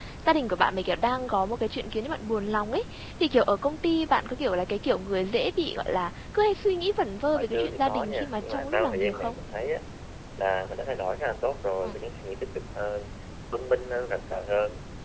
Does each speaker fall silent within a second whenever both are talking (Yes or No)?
No